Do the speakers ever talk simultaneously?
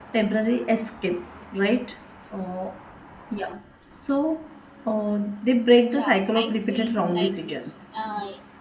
Yes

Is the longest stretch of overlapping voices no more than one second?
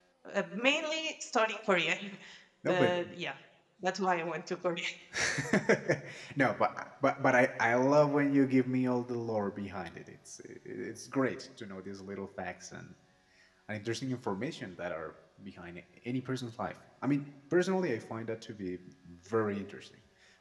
Yes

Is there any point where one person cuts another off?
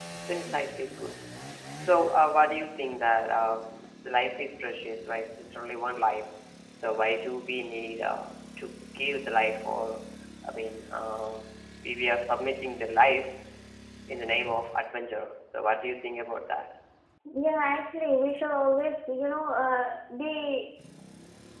No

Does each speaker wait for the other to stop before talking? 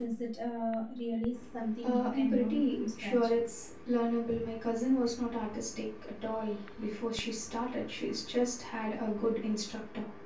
No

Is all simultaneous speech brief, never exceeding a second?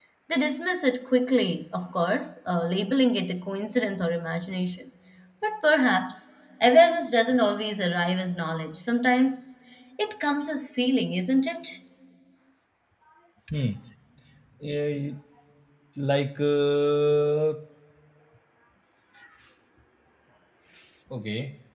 Yes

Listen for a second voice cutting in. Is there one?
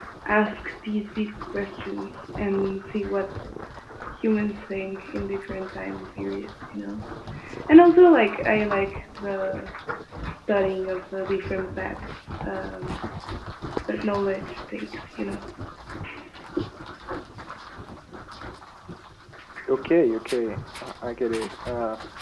No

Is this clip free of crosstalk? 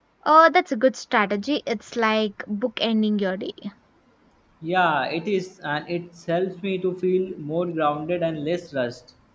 Yes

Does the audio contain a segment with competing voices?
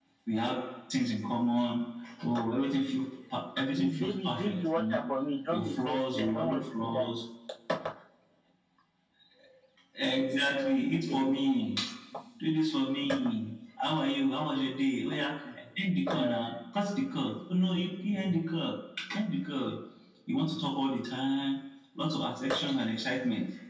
Yes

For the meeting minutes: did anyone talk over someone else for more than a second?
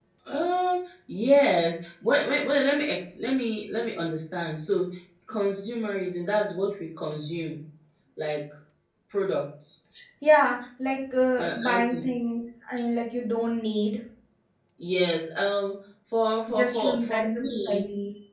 Yes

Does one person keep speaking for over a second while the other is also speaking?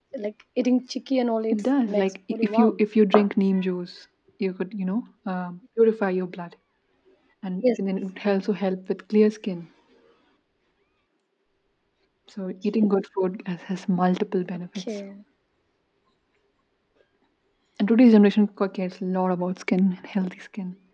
Yes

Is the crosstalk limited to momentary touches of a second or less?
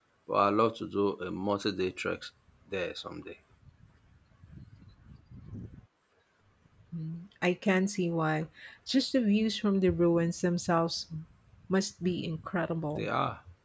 Yes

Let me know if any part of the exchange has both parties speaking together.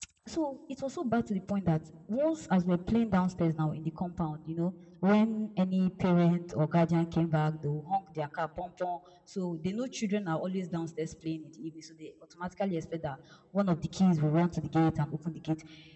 No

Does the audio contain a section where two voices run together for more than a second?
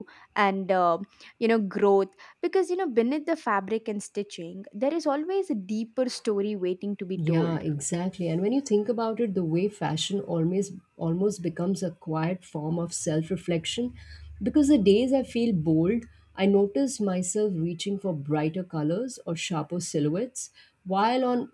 No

